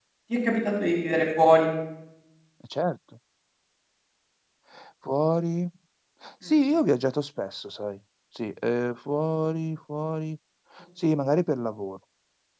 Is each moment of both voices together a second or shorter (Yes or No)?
Yes